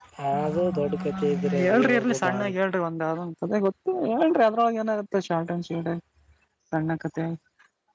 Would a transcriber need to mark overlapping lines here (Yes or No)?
Yes